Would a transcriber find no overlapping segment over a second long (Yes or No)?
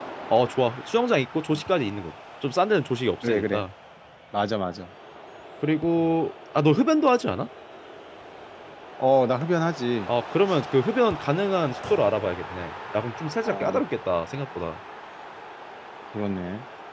Yes